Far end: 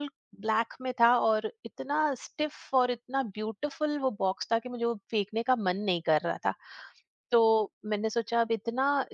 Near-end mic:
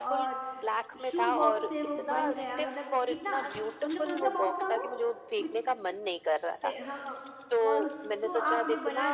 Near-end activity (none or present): present